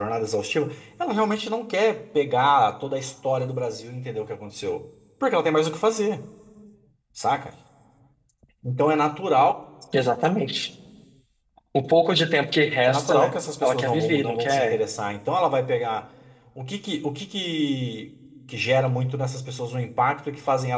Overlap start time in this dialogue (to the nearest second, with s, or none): 13 s